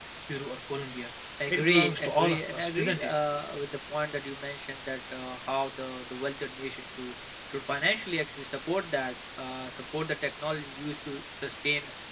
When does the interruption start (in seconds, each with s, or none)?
1.4 s